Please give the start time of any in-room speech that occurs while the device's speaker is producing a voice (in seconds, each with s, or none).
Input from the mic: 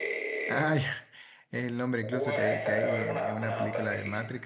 0.4 s